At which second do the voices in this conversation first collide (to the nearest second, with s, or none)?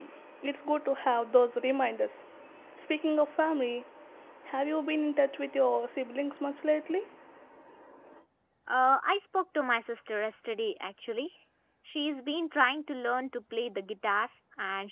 none